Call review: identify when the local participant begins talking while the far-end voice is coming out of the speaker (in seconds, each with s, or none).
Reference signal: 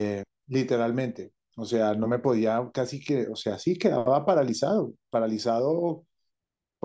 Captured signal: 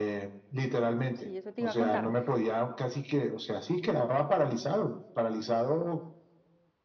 1.1 s